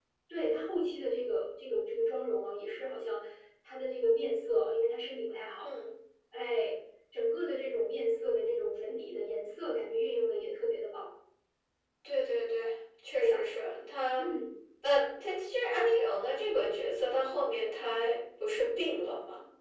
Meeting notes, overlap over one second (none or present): none